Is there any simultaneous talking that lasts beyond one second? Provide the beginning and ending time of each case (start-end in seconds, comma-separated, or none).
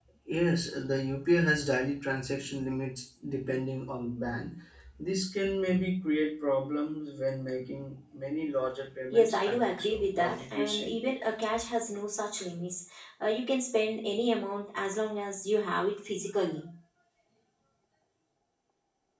9.1-10.9